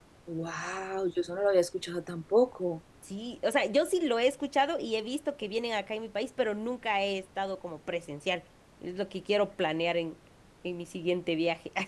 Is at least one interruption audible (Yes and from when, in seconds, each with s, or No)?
No